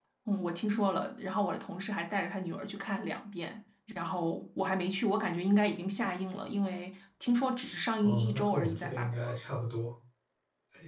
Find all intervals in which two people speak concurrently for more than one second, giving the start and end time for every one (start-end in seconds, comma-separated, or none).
8.0-9.3